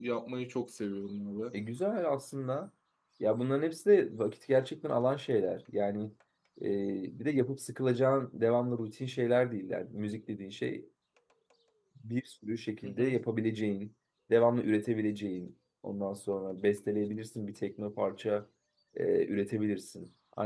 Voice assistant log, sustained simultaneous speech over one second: none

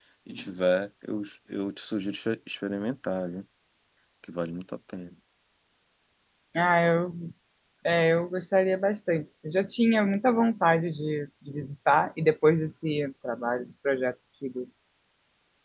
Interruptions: none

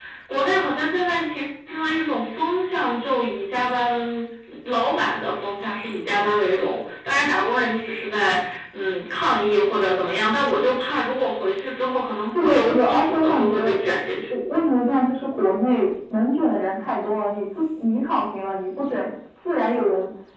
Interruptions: present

